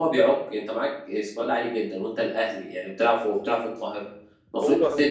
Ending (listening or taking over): listening